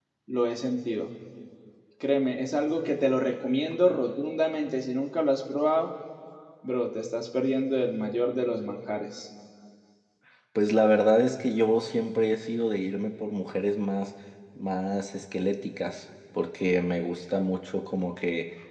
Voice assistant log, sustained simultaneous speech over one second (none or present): none